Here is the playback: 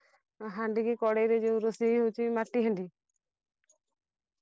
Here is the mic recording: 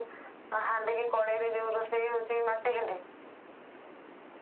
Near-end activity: none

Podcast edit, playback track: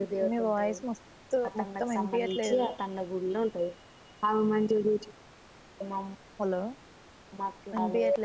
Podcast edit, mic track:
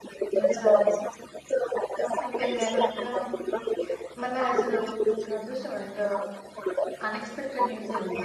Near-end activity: present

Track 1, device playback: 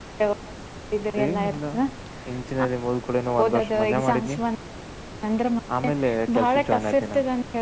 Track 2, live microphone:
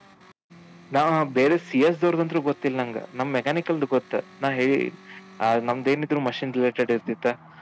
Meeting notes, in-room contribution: present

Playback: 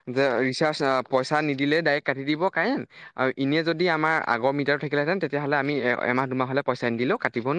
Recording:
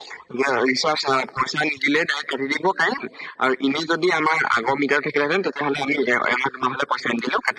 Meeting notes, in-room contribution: none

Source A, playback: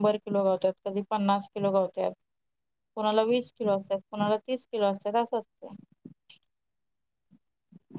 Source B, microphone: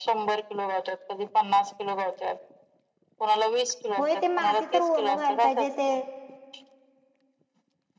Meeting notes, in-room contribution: present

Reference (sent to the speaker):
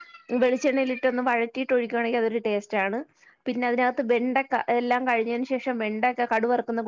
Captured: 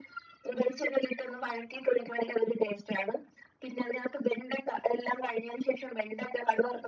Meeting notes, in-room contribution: none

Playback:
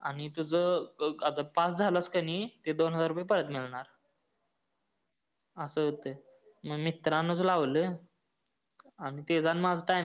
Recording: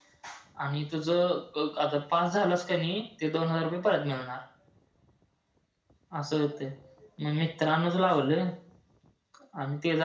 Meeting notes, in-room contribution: none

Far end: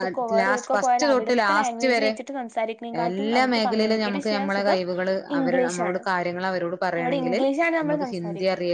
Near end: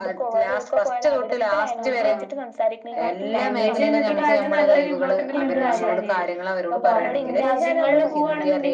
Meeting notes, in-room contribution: present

